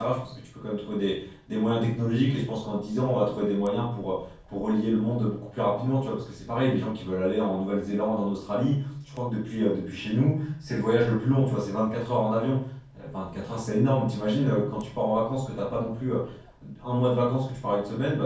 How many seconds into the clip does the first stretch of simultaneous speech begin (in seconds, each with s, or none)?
none